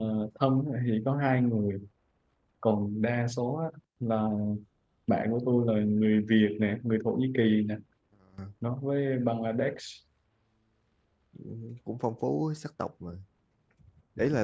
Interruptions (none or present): none